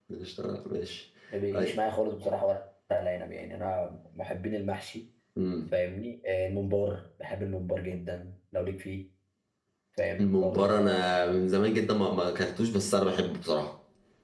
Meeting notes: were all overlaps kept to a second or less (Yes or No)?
No